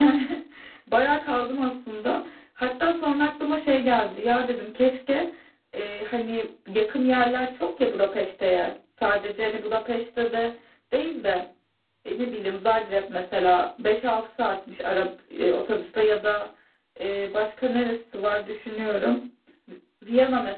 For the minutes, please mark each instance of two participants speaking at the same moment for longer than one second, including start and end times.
none

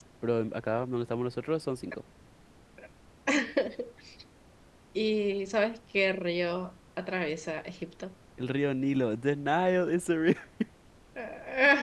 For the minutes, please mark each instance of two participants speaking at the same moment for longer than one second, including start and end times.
none

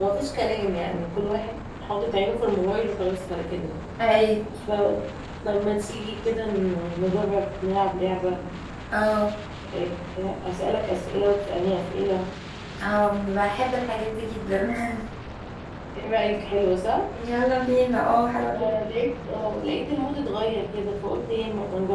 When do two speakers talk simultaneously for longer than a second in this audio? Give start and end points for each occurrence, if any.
none

